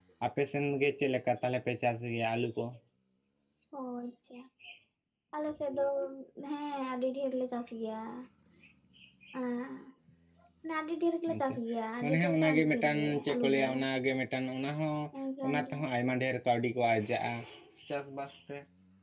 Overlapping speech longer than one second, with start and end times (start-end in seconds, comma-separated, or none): 12.0-13.7